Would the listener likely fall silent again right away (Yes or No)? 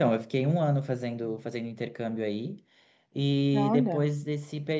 Yes